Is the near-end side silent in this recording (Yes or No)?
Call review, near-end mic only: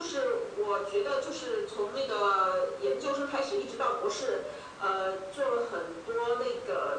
Yes